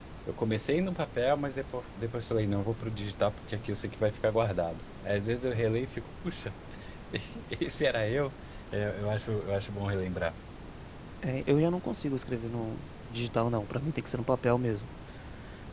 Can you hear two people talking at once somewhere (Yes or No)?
No